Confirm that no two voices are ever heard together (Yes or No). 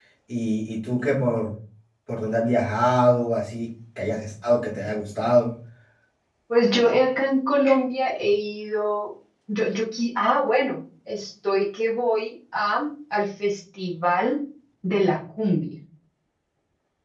Yes